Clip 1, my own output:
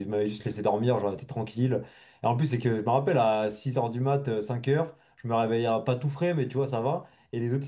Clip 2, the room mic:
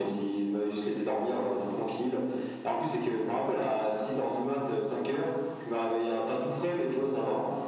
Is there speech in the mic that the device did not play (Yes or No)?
No